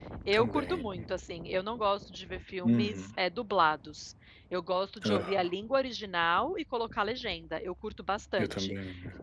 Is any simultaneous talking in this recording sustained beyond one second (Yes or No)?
No